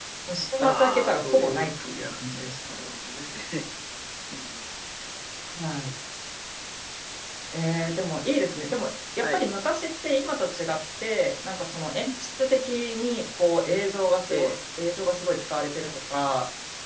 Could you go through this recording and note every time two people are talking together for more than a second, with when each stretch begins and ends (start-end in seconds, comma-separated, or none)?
0.6-2.8